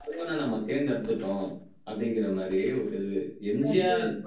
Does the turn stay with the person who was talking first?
Yes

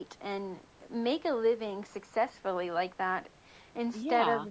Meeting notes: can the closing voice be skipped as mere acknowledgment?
Yes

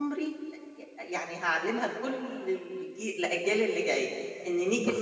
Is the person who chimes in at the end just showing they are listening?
No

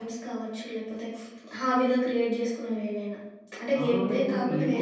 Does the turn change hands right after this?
Yes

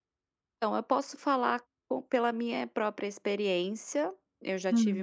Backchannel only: Yes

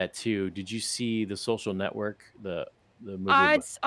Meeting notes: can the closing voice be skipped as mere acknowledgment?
No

